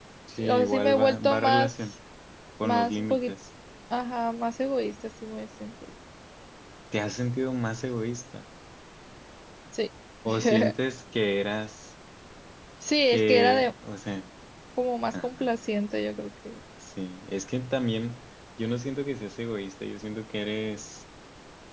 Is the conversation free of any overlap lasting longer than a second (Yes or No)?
No